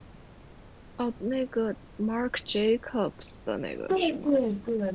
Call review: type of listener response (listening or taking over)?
taking over